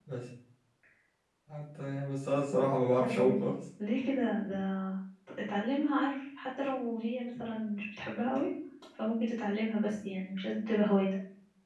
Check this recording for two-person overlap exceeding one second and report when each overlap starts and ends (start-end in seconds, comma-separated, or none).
none